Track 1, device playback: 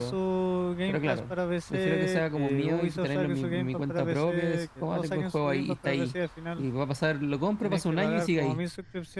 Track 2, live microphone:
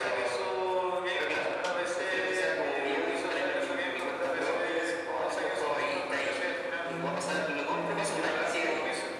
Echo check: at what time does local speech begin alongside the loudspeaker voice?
7 s

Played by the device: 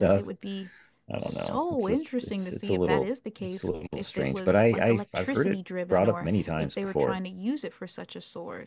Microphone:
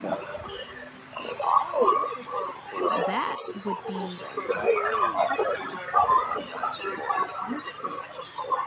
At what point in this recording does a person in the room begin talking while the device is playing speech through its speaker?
3 s

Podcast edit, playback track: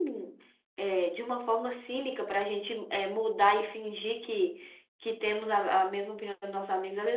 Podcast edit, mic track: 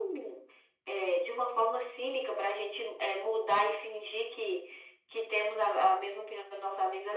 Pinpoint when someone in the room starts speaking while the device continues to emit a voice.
none

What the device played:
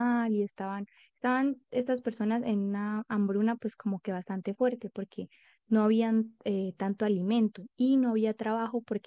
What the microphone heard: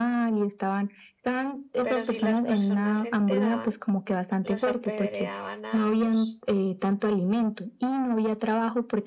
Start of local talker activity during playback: 2 s

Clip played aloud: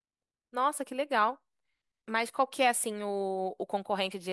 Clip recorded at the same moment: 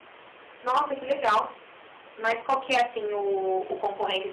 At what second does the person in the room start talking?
none

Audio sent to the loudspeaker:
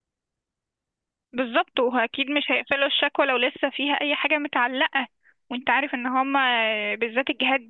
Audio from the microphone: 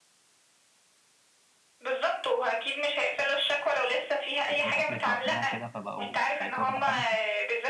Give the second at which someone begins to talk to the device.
5 s

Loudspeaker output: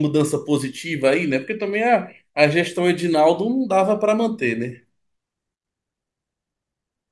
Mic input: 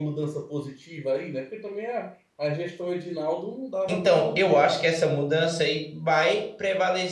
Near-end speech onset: 4 s

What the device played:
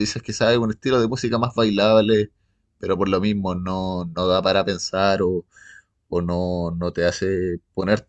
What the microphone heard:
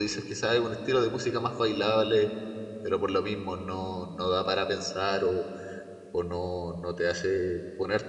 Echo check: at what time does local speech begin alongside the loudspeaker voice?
none

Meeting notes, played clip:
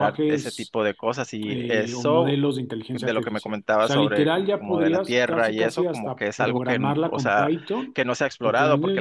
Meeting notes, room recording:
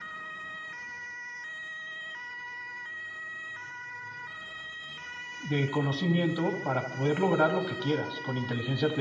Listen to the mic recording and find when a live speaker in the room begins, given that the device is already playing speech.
5 s

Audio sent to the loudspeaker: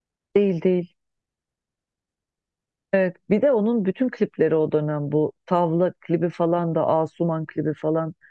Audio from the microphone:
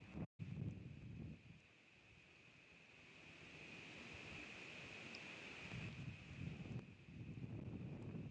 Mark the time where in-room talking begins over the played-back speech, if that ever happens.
none

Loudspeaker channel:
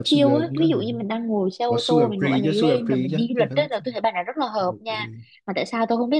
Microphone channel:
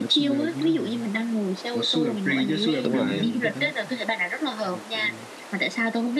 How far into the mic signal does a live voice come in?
3 s

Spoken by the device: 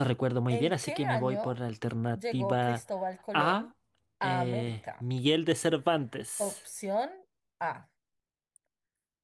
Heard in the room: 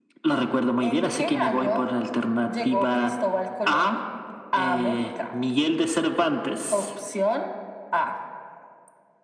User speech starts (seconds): none

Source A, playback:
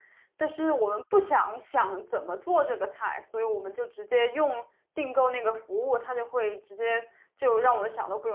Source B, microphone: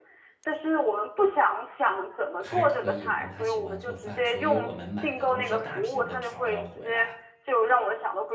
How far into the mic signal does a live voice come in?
2 s

